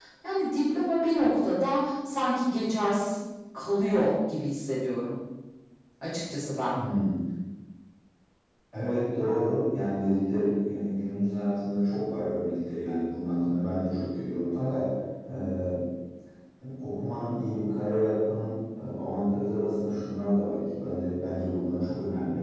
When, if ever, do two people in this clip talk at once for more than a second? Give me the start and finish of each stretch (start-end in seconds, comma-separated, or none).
none